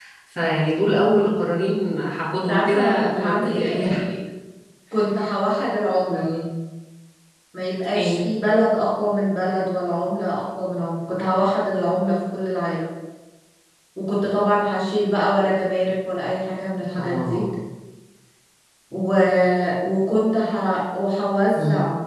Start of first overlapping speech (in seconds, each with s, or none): 2.5 s